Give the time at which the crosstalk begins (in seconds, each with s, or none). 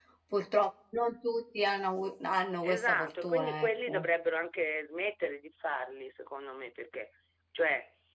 2.6 s